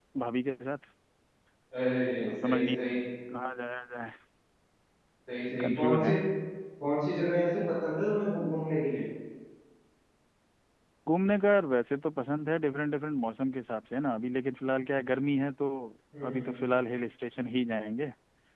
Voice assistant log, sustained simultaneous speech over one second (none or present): none